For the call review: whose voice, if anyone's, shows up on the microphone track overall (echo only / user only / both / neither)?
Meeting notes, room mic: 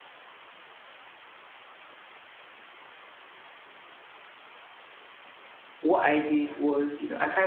user only